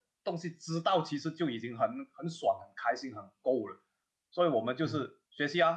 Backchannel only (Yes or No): Yes